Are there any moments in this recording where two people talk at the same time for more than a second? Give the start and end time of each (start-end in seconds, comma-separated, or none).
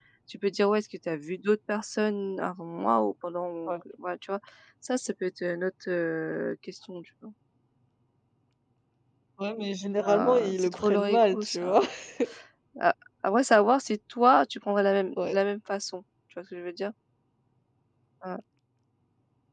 10.1-11.8